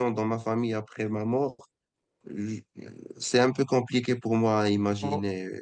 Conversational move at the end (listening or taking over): taking over